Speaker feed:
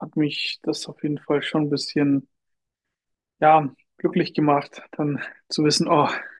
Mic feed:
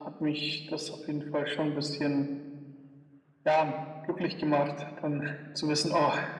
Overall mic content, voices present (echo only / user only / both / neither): echo only